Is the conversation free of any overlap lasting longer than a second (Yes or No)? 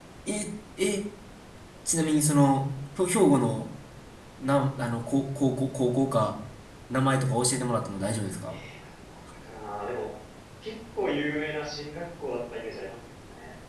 Yes